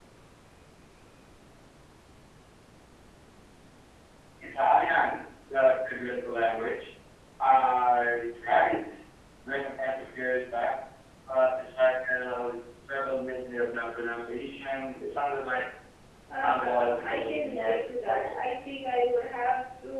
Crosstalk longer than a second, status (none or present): present